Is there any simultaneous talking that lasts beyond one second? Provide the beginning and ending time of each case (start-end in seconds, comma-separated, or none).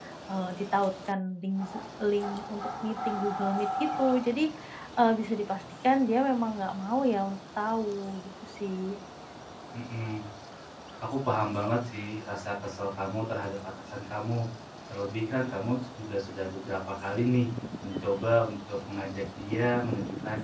none